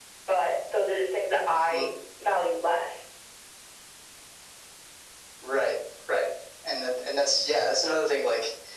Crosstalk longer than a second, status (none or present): none